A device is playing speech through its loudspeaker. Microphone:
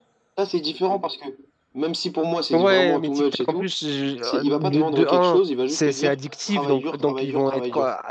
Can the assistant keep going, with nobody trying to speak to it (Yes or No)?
No